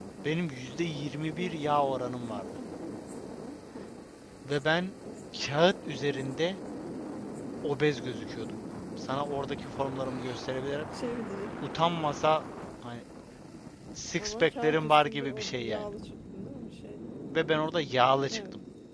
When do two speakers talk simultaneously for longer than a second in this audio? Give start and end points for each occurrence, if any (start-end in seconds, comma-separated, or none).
14.2-15.9